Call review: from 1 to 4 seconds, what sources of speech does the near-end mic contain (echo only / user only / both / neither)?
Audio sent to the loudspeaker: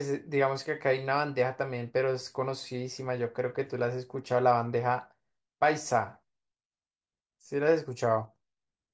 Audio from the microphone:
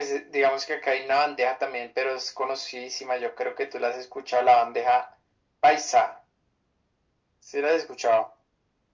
echo only